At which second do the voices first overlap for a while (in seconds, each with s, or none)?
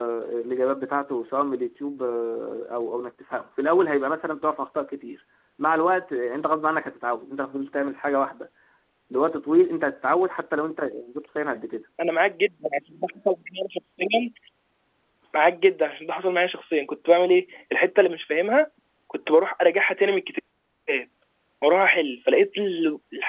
none